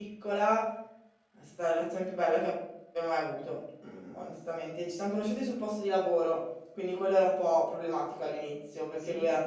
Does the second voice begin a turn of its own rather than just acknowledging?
No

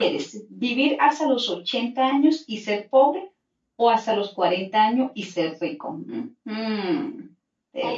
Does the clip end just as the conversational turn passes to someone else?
Yes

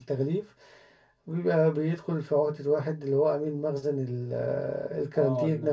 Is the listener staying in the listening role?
No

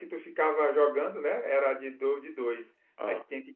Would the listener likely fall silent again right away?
Yes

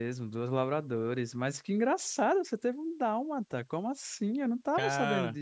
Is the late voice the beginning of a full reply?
No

